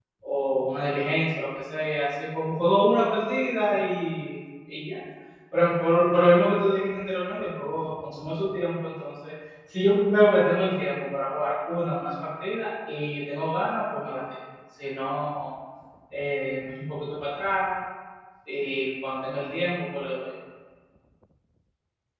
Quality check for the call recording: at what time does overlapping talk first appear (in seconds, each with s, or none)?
none